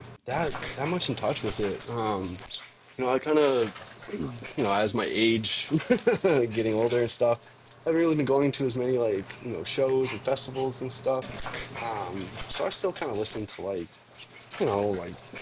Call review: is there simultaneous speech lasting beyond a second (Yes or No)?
No